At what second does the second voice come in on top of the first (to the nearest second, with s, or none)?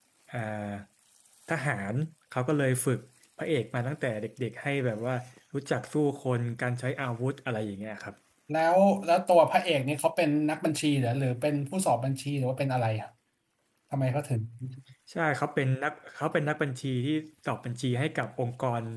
none